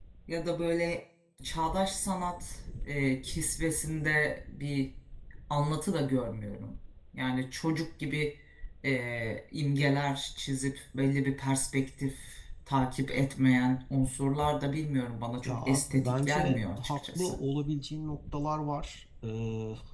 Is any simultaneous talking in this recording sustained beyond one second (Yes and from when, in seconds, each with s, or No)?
Yes, from 15.4 s